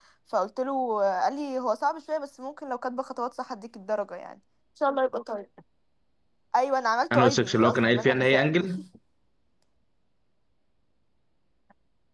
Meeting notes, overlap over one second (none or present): present